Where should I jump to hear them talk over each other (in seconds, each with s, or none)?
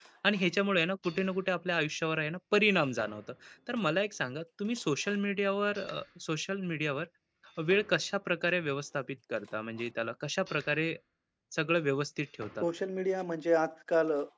none